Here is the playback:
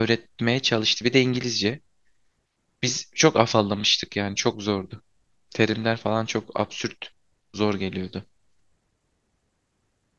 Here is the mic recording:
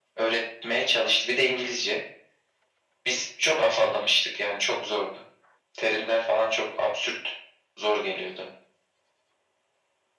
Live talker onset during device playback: none

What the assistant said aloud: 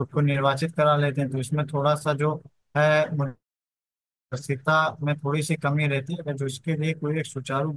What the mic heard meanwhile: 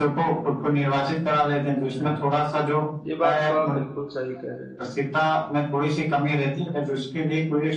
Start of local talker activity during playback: 2.0 s

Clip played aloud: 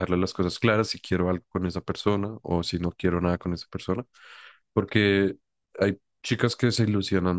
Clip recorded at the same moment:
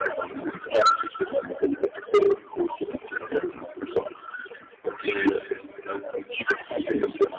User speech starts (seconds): none

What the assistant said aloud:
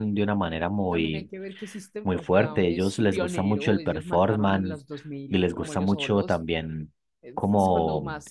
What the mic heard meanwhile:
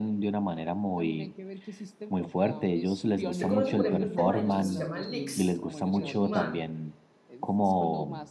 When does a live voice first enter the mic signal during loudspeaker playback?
3.3 s

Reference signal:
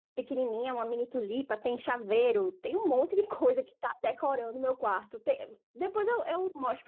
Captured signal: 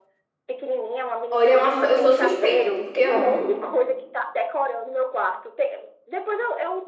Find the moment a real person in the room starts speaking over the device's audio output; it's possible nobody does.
1.3 s

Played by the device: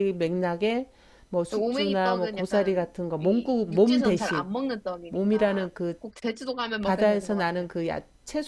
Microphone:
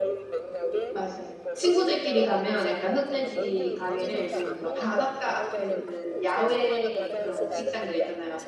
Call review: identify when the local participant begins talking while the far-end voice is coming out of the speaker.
0.9 s

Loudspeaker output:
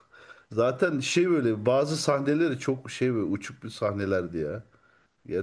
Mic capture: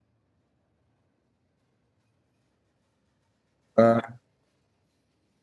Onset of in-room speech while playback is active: 3.8 s

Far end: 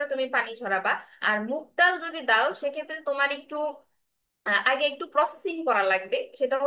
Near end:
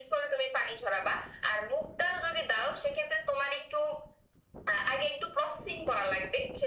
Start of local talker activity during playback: none

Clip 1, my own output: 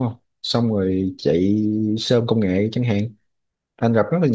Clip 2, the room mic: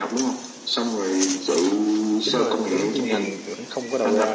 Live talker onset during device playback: 2.2 s

